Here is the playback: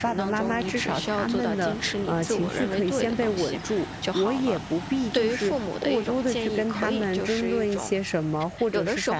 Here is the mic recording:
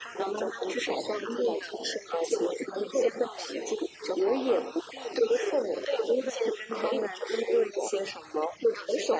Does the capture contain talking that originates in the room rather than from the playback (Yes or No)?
No